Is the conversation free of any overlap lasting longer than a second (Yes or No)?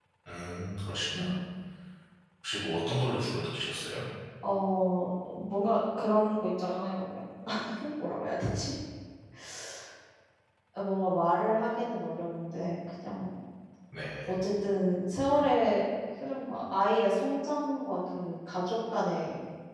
Yes